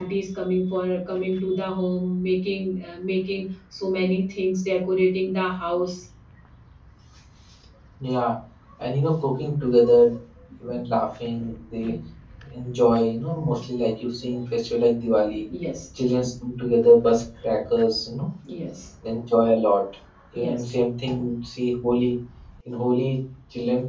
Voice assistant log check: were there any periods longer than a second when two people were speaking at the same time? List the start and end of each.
none

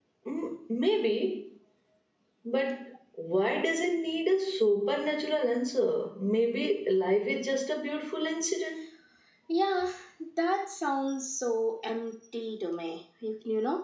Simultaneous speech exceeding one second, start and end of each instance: none

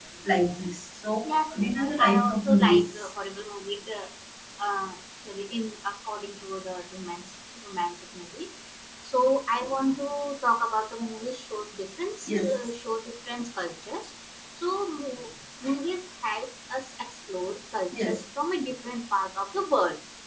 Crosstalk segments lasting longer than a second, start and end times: 1.2-3.1

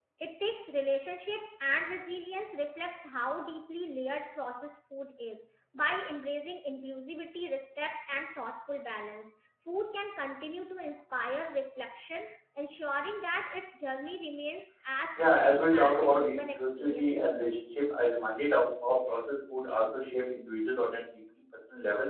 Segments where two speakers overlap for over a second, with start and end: 15.2-17.5

